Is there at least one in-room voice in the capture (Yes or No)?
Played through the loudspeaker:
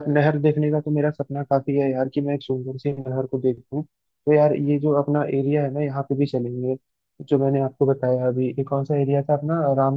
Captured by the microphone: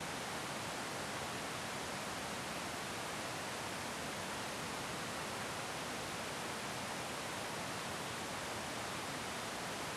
No